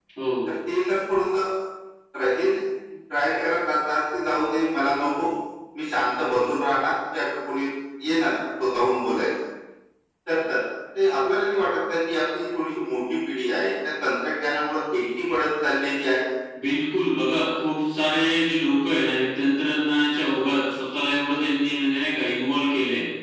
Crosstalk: none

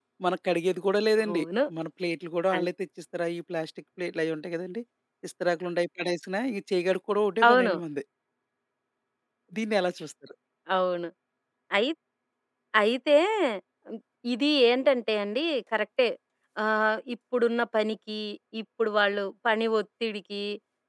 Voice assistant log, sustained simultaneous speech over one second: none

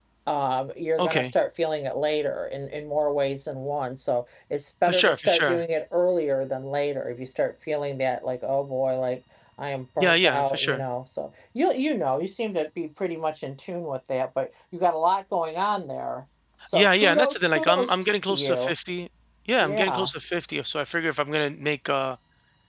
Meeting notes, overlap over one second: present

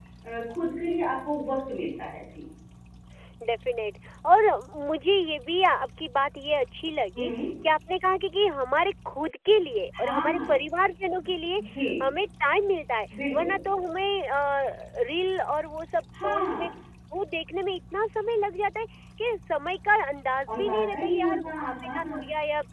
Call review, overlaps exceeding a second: present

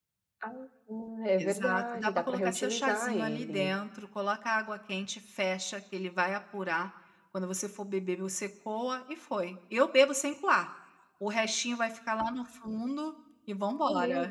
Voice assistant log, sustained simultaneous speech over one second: present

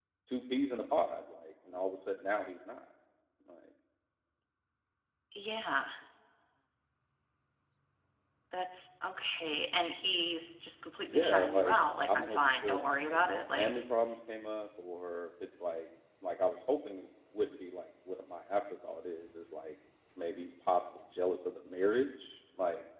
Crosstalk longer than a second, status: present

